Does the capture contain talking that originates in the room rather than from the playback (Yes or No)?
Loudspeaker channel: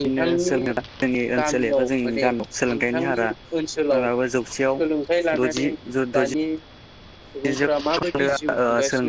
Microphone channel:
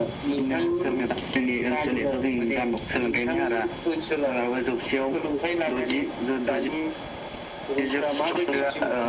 No